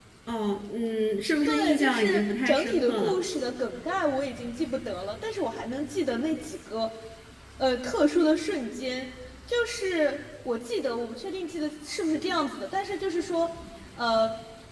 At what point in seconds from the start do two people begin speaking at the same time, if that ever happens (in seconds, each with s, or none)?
1.5 s